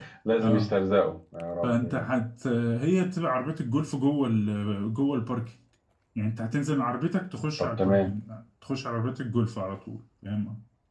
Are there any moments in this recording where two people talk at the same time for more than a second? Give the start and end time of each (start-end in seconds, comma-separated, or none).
none